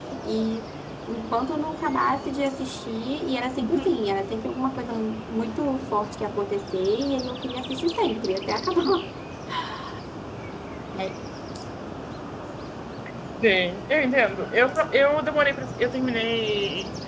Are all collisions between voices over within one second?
Yes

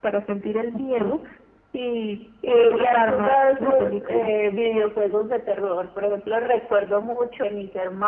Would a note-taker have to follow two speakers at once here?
Yes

